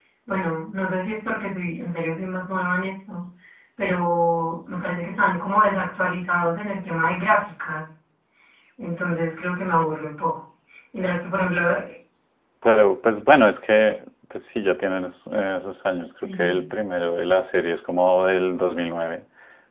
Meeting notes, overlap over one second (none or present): none